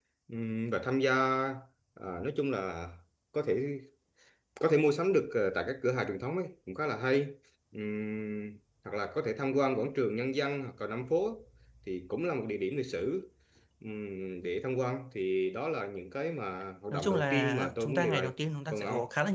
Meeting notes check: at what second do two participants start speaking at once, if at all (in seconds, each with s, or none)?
16.9 s